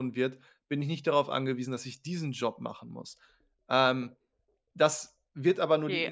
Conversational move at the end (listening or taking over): taking over